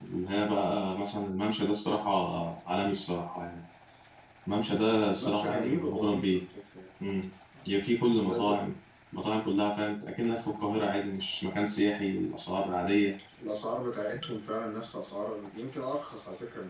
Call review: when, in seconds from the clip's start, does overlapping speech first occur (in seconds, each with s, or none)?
5.1 s